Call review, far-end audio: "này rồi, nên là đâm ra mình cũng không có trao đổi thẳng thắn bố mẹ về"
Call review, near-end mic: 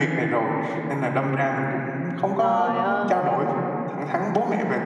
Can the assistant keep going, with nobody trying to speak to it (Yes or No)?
No